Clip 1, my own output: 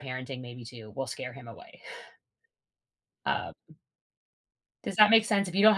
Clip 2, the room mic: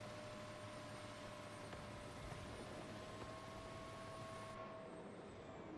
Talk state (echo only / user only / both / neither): neither